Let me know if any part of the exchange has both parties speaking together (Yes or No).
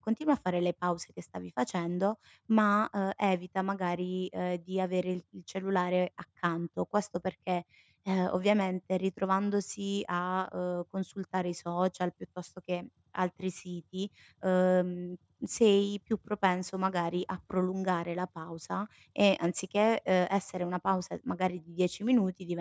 No